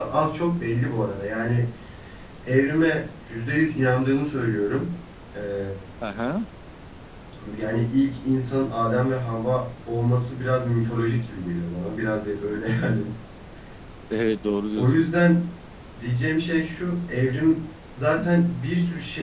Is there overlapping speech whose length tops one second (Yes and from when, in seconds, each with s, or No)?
No